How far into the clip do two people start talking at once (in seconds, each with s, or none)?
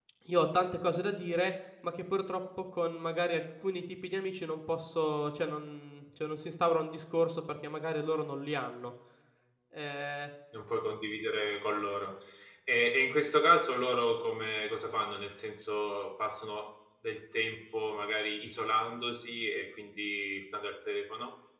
none